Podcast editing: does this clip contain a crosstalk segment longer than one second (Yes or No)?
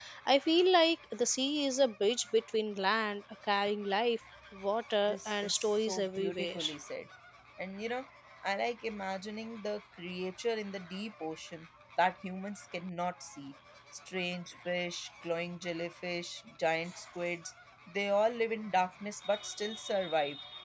Yes